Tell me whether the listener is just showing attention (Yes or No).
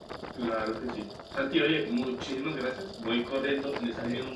Yes